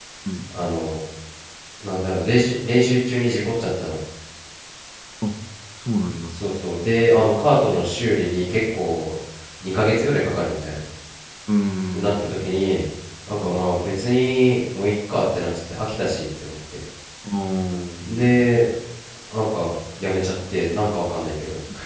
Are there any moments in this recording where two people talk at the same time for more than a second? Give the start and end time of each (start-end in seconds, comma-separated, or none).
none